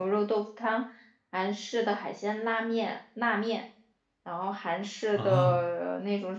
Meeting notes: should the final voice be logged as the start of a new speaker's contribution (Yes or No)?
No